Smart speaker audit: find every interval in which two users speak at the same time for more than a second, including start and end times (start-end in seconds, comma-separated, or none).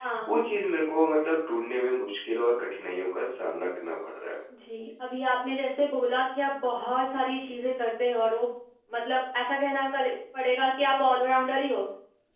none